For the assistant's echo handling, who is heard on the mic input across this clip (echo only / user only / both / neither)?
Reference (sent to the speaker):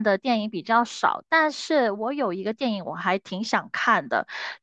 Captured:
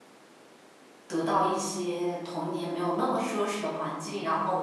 user only